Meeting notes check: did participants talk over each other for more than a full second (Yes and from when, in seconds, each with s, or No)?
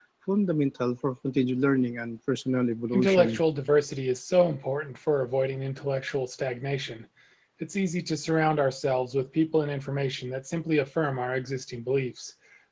No